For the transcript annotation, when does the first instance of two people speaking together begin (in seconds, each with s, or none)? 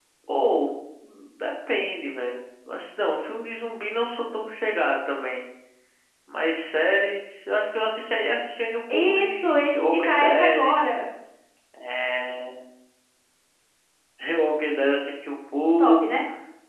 8.9 s